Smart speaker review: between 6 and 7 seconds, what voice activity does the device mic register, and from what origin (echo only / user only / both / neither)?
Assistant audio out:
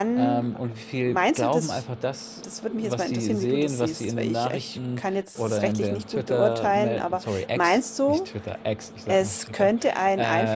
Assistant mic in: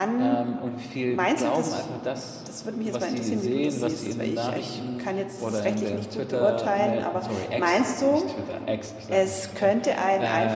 echo only